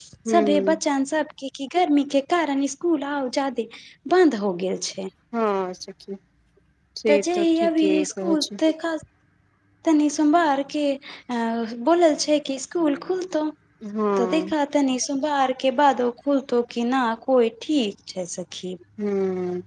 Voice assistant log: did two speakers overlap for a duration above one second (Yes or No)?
Yes